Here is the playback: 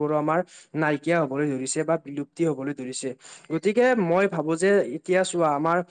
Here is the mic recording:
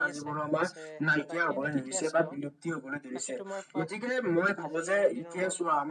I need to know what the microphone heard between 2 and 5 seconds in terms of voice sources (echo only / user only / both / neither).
both